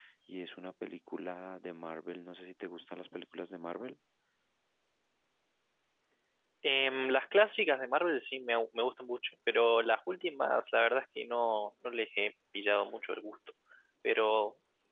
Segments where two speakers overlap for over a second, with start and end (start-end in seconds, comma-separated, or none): none